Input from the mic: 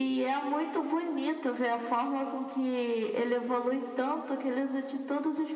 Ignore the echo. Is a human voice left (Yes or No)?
No